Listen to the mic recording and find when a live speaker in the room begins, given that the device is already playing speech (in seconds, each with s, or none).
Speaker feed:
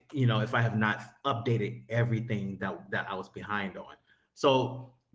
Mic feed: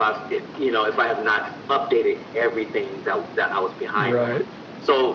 4.0 s